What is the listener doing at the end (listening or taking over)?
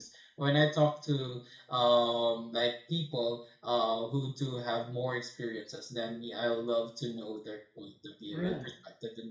listening